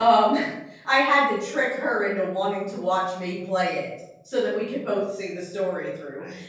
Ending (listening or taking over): listening